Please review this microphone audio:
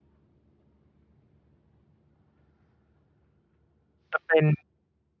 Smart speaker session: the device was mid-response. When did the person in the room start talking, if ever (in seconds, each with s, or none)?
4.1 s